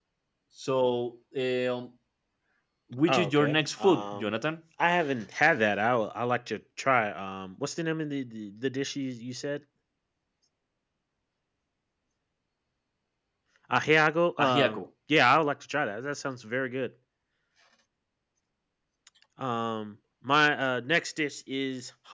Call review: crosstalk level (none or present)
present